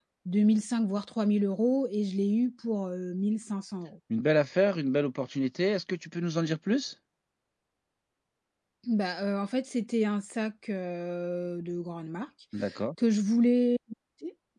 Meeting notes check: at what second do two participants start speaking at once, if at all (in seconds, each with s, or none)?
none